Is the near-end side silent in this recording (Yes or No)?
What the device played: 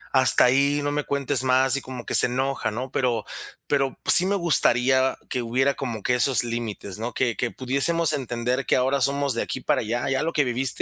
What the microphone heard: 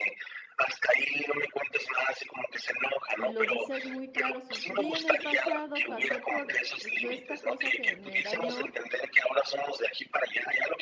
No